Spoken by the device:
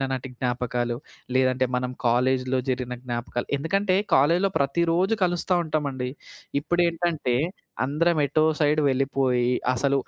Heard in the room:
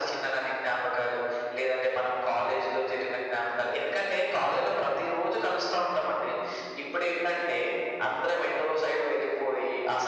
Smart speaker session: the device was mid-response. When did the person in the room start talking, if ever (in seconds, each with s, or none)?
none